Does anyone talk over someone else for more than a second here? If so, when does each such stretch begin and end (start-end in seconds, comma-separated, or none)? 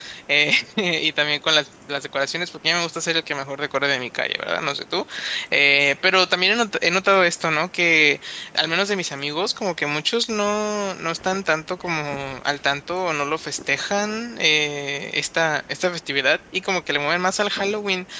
none